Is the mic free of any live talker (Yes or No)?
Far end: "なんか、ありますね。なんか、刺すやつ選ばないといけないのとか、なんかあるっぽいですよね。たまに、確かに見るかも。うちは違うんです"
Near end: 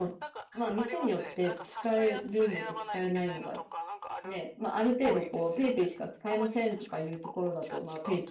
No